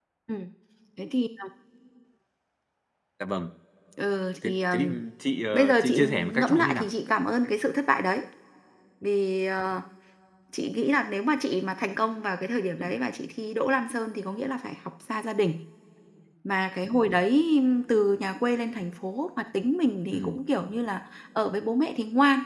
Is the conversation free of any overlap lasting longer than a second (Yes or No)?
No